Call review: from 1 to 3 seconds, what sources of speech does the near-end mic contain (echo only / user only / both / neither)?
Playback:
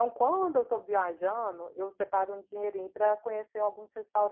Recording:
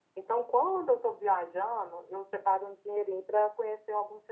echo only